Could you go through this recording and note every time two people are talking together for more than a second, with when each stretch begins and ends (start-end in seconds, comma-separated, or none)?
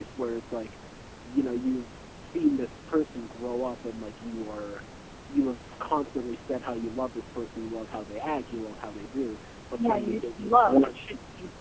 9.8-11.0